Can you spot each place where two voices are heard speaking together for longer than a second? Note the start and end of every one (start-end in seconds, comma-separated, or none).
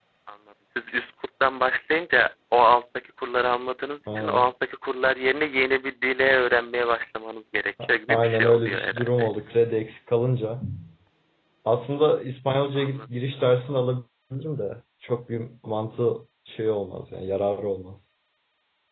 7.8-9.3